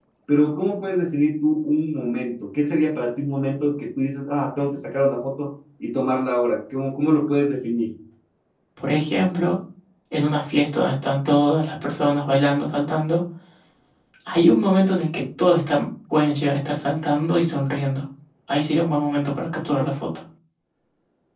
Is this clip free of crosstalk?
Yes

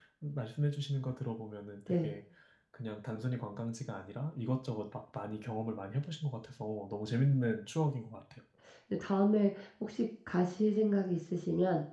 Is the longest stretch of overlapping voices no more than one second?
Yes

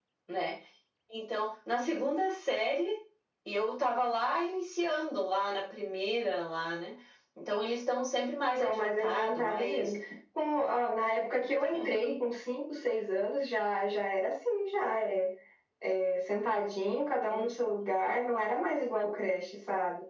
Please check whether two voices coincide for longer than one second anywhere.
Yes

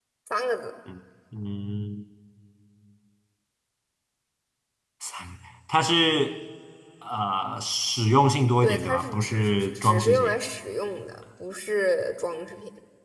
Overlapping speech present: Yes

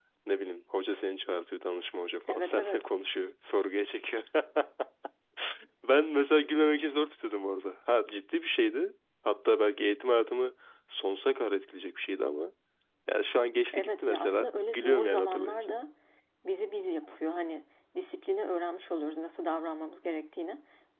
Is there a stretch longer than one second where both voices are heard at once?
Yes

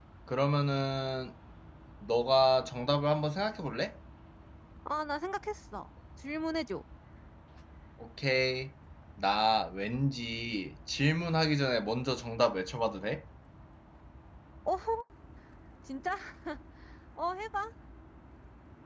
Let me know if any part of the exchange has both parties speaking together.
No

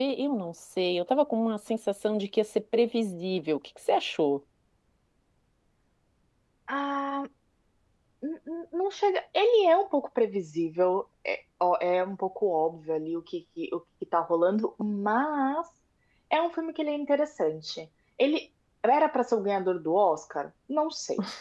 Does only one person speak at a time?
Yes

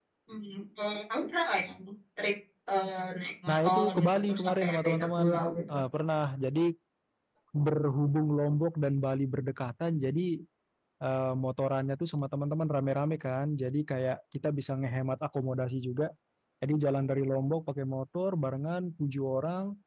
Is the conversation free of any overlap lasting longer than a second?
No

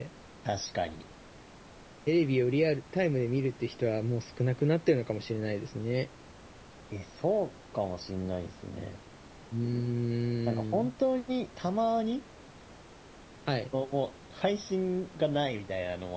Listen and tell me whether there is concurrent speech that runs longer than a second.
No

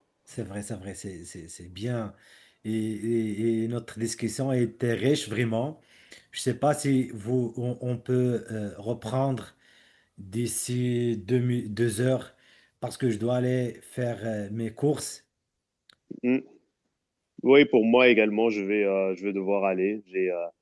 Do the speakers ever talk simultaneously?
No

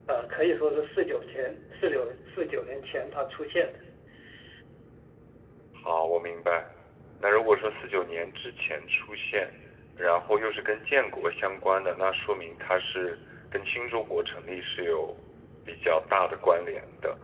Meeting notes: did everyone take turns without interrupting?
Yes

